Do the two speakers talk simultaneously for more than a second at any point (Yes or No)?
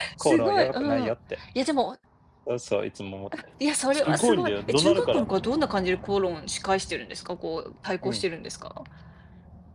Yes